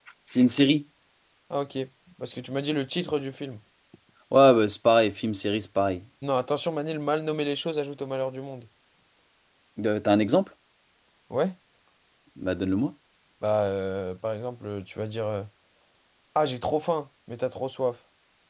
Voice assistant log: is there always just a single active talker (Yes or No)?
Yes